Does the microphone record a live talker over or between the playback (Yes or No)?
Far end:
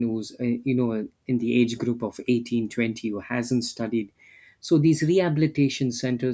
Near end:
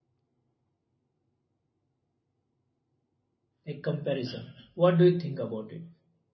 Yes